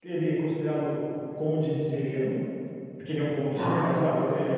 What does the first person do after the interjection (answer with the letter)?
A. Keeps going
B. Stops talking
A